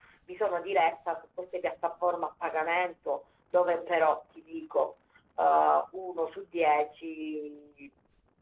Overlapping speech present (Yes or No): No